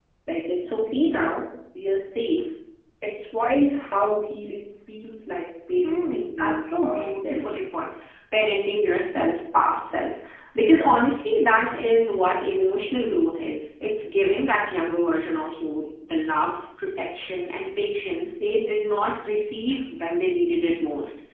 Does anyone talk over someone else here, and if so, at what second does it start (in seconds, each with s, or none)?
5.8 s